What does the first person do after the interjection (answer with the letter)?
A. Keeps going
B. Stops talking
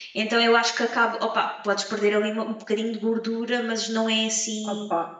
B